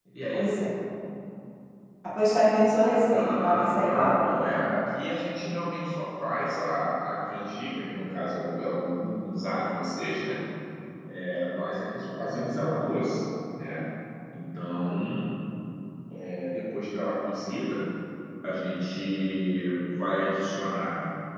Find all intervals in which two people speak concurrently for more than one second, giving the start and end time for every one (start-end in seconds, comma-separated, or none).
3.1-4.4